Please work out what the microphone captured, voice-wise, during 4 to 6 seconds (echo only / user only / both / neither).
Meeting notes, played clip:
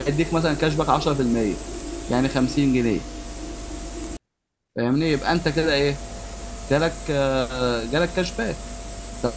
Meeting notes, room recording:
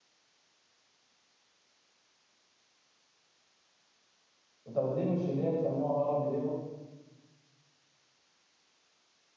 user only